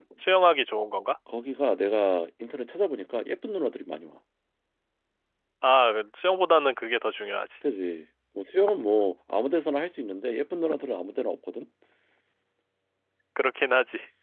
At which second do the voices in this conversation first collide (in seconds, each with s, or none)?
none